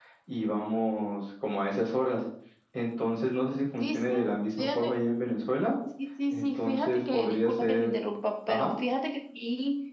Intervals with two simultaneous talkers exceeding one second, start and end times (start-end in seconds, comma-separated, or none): 6.3-7.9